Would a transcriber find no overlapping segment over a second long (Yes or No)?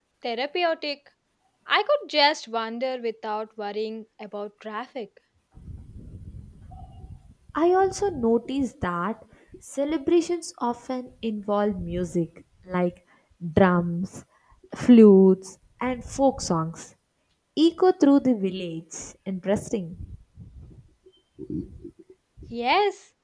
Yes